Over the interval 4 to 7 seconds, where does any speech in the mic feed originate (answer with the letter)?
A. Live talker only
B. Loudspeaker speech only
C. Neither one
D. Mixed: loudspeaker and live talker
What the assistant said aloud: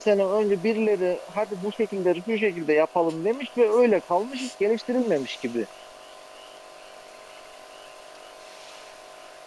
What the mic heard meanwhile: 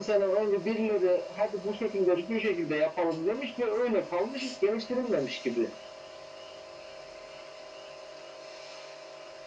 B